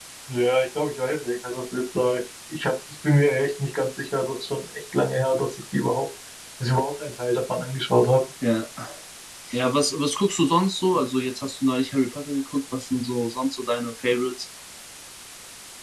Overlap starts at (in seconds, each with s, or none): none